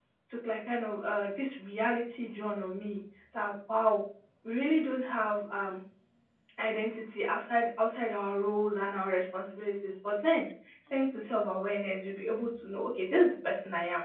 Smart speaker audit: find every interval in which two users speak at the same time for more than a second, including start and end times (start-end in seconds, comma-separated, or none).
none